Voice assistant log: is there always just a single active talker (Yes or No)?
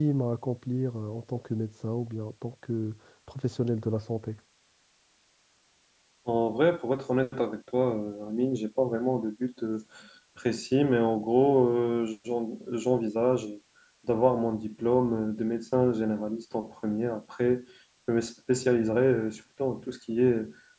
Yes